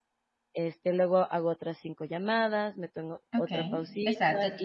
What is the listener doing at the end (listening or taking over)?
taking over